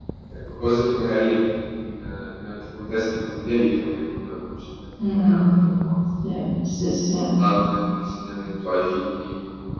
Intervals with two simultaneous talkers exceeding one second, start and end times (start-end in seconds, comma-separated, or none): none